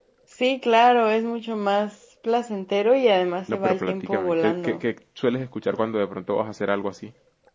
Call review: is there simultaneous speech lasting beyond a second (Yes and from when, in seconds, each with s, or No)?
Yes, from 3.5 s